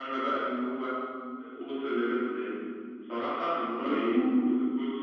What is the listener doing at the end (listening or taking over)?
listening